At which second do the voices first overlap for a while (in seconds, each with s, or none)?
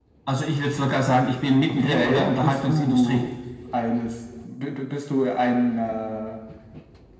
1.7 s